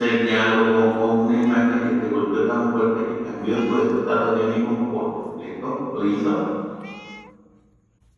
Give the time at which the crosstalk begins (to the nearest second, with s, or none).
none